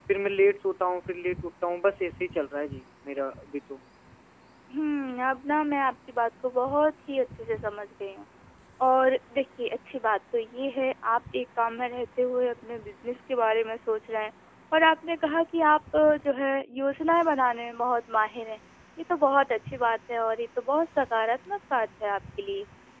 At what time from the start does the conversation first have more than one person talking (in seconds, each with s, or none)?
none